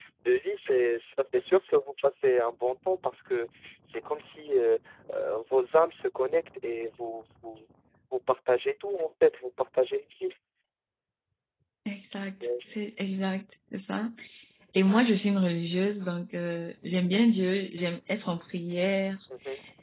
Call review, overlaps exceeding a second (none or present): none